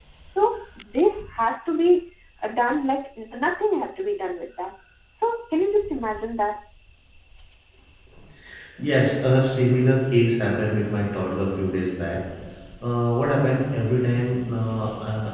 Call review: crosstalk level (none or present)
none